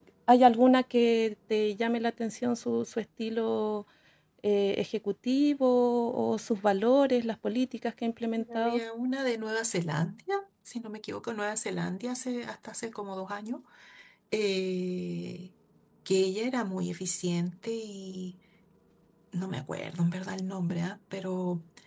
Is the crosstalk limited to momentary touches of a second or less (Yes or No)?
Yes